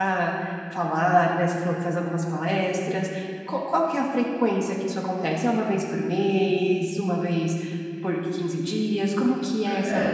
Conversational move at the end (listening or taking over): taking over